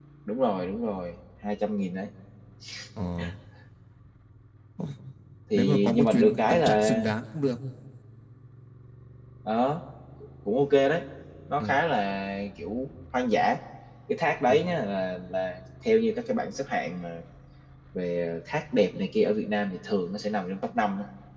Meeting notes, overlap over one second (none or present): present